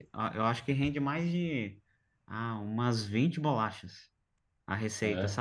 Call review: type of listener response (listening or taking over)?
listening